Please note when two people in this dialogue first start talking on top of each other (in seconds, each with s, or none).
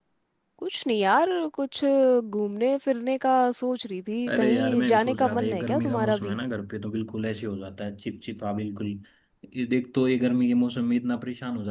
4.3 s